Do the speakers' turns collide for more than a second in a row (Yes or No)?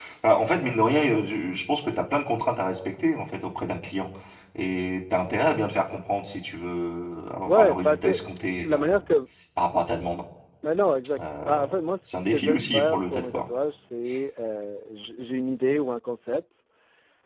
Yes